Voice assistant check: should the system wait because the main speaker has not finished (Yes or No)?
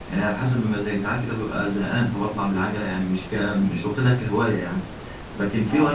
Yes